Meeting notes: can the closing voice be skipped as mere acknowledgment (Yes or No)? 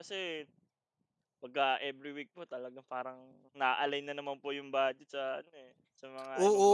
No